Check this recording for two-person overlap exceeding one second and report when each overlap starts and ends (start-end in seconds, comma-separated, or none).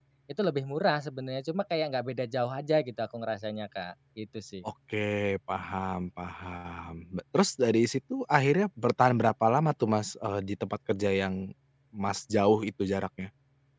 none